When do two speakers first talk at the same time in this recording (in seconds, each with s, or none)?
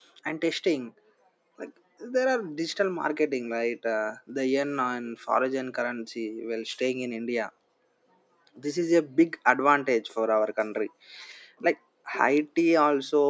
none